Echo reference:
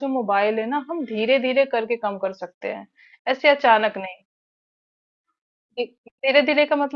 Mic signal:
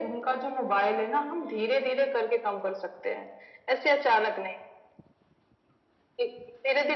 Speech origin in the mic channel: echo only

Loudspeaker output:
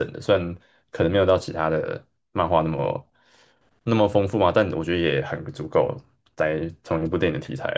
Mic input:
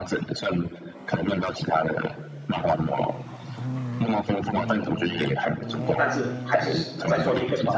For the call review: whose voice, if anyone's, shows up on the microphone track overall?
both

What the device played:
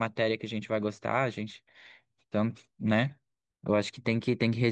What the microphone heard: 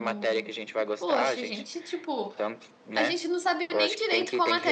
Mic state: both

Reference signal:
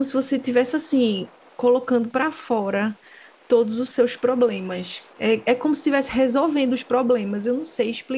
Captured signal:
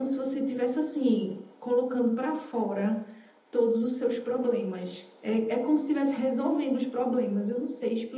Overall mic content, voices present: echo only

